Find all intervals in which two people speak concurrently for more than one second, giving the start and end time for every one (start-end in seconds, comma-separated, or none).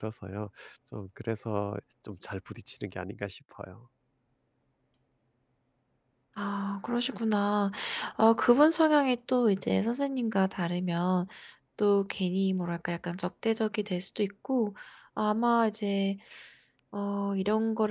none